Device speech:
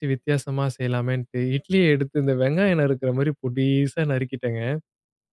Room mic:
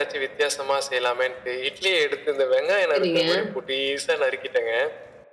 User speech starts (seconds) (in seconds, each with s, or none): 2.9 s